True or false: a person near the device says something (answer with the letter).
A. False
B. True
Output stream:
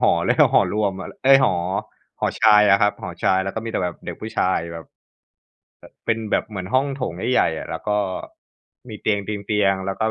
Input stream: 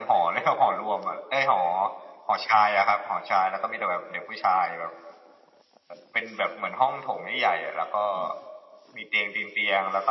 A